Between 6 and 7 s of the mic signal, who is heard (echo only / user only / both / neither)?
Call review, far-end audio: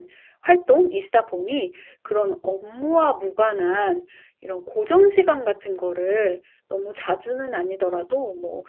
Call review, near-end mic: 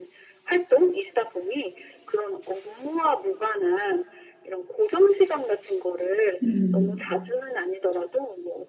both